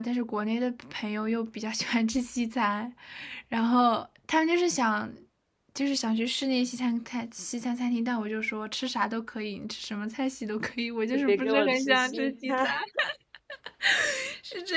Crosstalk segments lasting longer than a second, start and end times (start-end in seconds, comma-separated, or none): 11.1-12.7